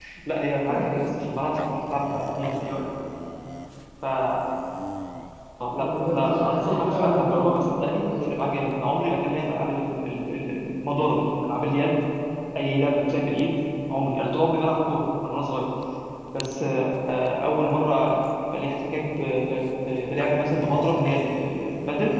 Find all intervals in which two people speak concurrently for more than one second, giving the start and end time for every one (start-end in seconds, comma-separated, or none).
5.8-8.3